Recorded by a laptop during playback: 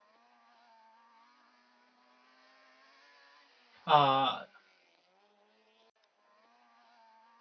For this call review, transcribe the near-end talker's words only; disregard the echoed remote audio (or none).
uh,